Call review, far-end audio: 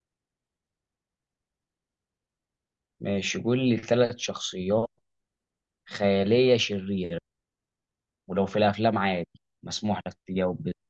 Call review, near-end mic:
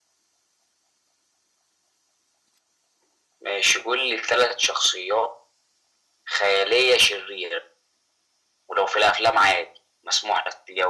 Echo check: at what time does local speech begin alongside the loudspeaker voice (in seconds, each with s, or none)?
none